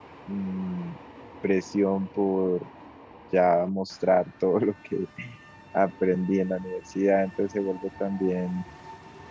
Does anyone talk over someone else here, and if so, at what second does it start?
none

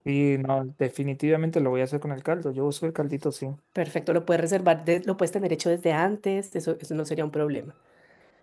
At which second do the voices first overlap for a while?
none

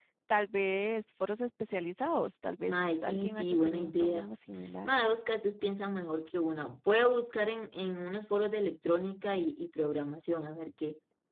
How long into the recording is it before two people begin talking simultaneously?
2.7 s

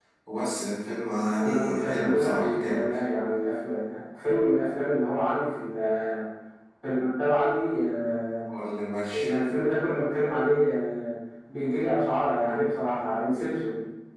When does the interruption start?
1.4 s

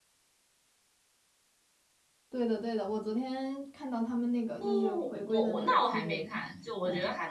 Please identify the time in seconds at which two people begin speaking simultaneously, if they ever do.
4.6 s

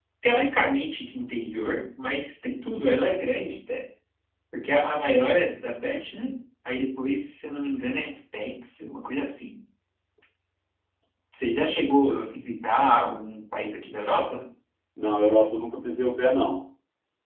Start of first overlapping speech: none

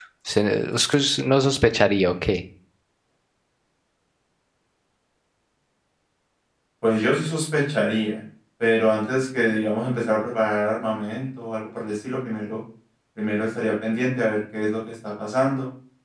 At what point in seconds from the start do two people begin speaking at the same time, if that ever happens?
none

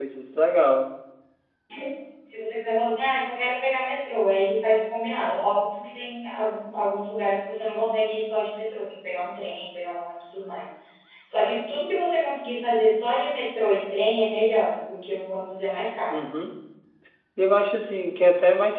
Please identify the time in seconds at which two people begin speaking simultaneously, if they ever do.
none

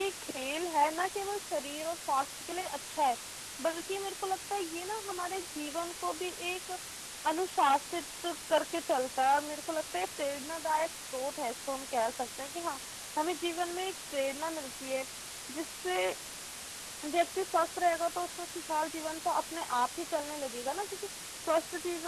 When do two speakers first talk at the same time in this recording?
none

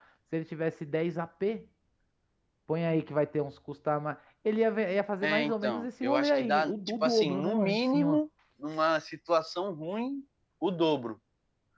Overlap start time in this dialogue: 5.2 s

